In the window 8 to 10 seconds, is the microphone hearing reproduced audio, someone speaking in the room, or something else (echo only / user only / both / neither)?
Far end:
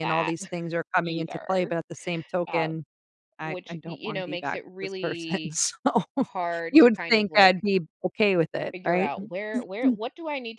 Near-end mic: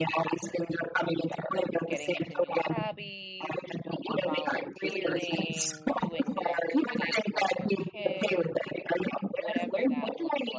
both